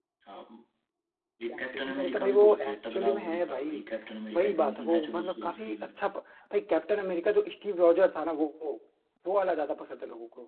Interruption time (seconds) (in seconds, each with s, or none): 1.5 s